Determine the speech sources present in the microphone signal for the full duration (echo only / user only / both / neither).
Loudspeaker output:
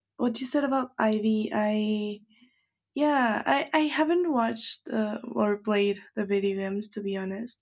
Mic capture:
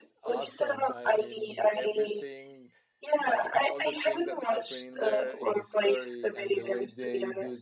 both